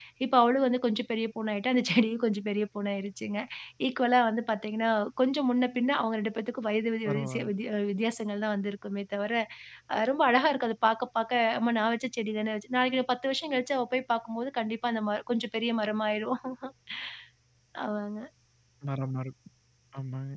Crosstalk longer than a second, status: none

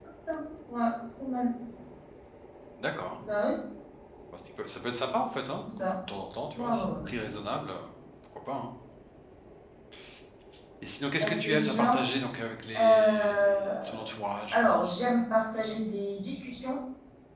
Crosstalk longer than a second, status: present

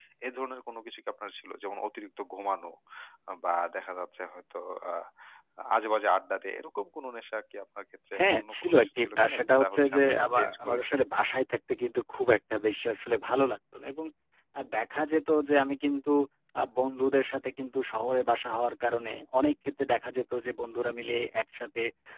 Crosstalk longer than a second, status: present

